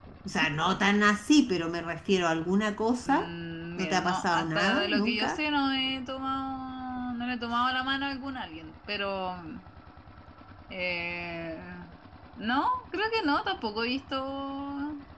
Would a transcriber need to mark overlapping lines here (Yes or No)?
Yes